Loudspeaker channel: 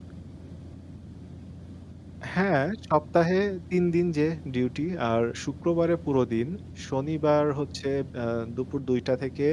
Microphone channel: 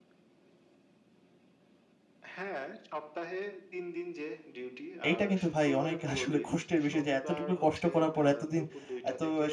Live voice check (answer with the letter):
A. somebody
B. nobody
A